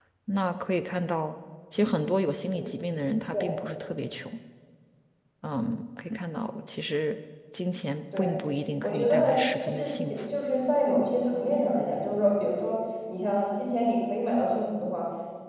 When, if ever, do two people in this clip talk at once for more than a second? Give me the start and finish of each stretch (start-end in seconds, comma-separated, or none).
8.8-10.3